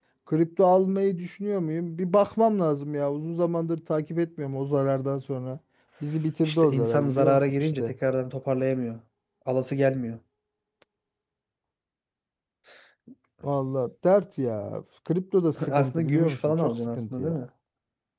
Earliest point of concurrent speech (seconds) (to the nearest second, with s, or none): 6 s